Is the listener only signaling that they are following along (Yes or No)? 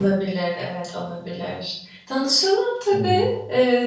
Yes